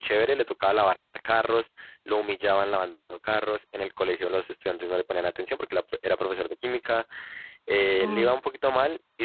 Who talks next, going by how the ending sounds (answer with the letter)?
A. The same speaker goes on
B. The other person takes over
A